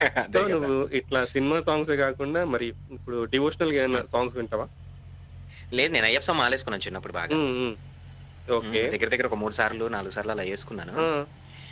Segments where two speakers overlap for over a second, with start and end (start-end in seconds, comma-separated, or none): none